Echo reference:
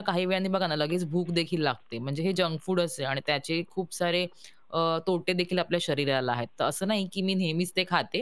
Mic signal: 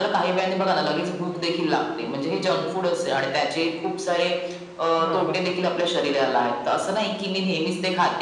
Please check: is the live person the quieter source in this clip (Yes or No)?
Yes